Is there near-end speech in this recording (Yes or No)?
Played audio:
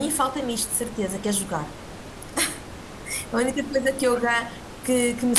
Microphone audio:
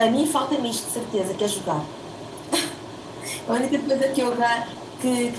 No